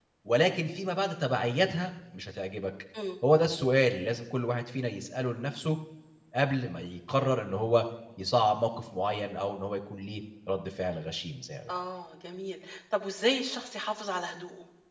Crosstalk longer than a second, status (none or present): none